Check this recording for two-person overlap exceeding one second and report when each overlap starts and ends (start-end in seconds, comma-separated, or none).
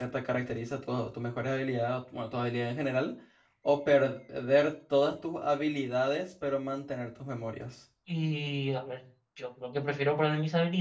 none